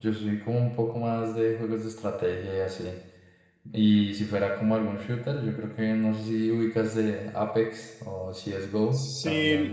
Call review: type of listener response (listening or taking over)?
taking over